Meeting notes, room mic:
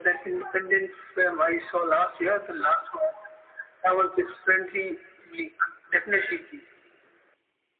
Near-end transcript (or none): none